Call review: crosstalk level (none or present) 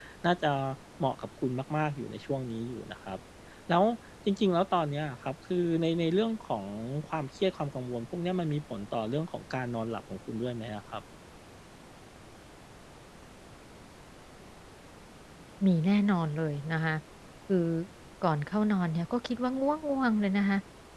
none